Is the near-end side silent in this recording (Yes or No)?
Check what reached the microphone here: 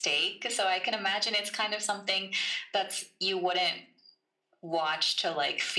Yes